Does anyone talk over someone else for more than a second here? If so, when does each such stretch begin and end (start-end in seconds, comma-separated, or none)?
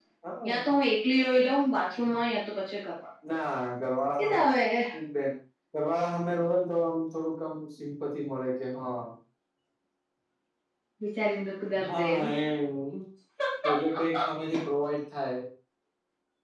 none